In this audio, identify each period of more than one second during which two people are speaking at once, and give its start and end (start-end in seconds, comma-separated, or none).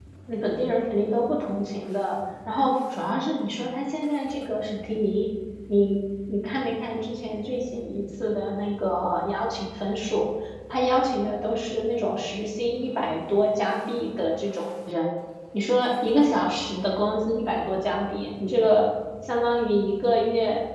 none